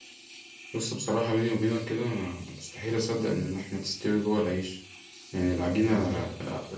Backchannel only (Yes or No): Yes